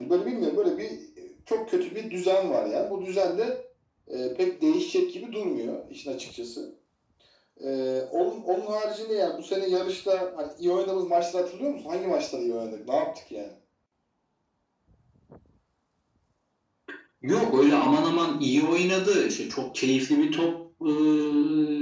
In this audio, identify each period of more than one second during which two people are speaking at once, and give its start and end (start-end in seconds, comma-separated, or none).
none